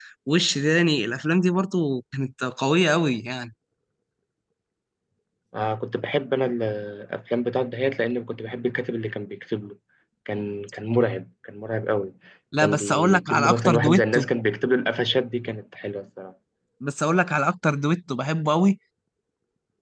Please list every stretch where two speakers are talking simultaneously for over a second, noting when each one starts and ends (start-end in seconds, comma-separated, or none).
12.6-14.2